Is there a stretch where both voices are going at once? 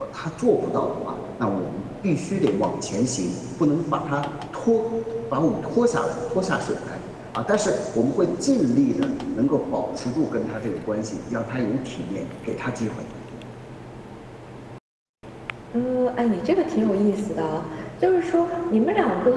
No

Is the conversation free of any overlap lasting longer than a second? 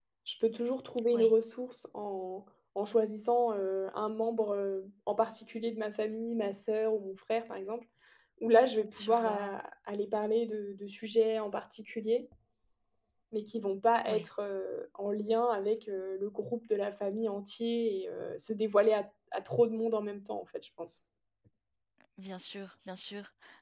Yes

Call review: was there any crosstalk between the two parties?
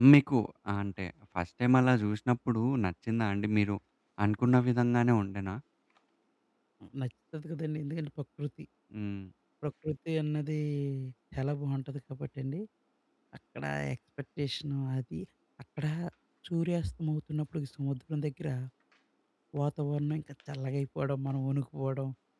No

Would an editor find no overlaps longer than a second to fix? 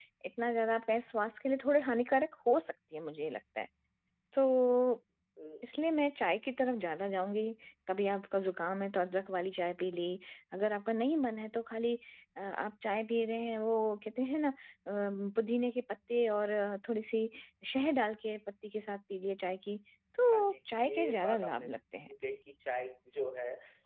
No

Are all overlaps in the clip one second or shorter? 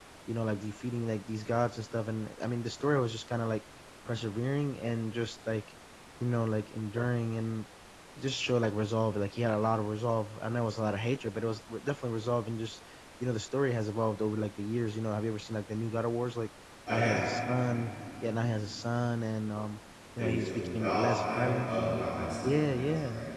No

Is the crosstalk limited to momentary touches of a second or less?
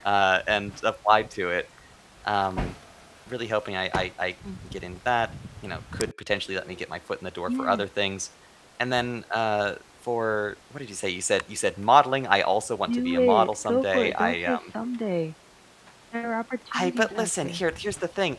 No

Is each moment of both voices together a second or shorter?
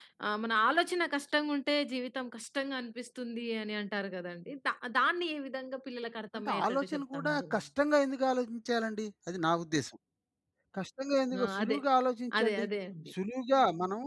No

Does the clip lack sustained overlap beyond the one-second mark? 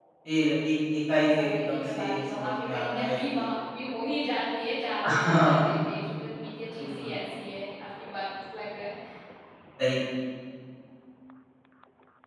No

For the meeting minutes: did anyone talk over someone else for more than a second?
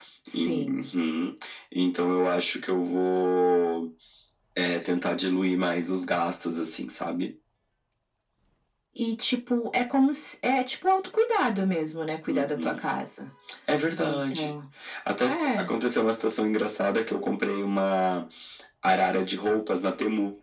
No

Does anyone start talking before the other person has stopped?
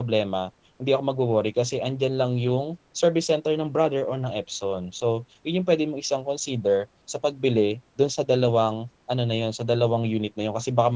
No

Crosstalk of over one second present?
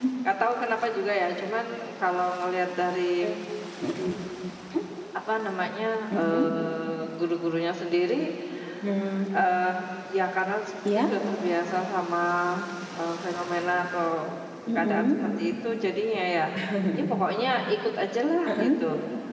No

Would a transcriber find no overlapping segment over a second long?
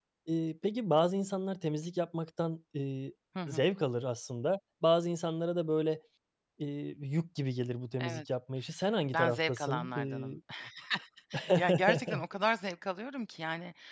No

